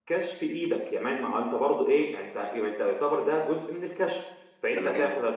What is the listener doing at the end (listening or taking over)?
listening